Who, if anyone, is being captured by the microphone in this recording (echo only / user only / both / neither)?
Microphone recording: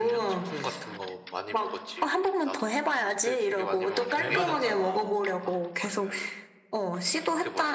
both